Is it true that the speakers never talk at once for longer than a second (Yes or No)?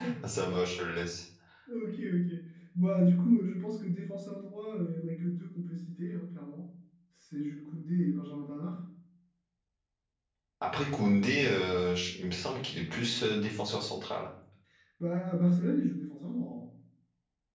Yes